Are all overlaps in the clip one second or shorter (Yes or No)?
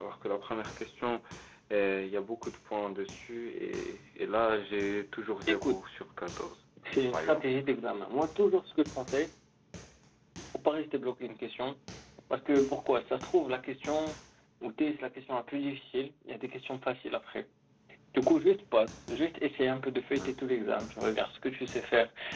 Yes